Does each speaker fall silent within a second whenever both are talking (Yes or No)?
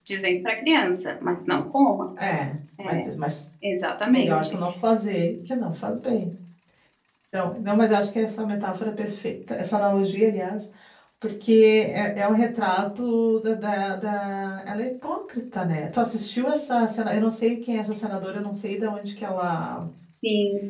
Yes